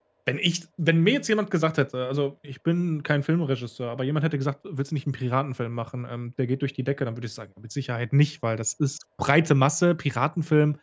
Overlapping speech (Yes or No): No